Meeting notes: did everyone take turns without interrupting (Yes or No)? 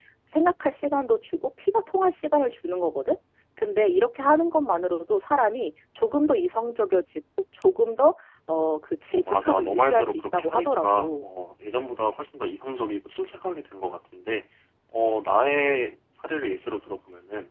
No